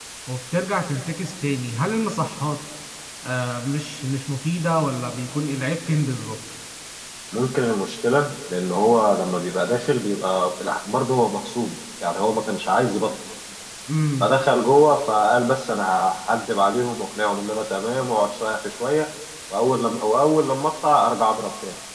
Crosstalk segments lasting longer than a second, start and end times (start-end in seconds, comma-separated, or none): none